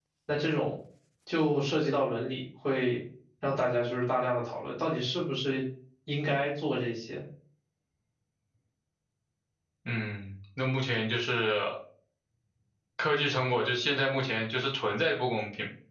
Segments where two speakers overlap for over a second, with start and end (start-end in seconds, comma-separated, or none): none